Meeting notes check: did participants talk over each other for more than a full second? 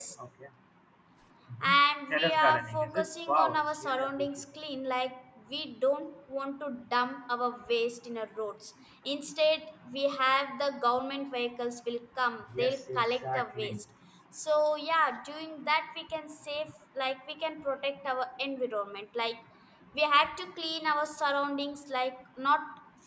Yes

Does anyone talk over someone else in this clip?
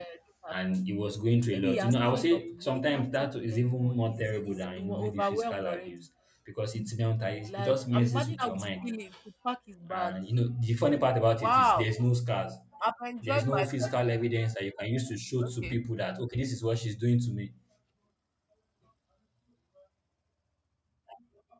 Yes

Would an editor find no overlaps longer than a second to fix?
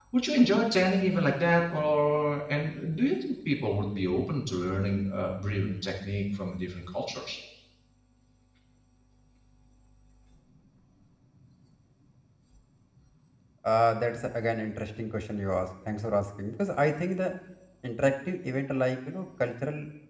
Yes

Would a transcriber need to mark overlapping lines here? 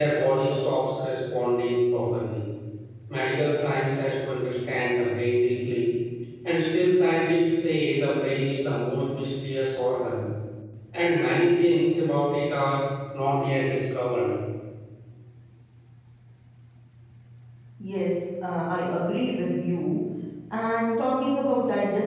No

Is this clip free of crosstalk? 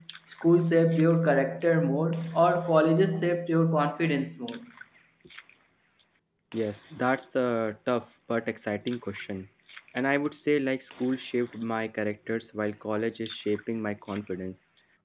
Yes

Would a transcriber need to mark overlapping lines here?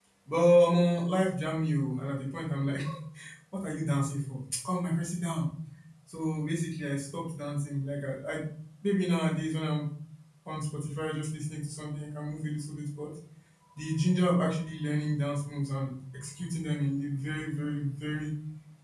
No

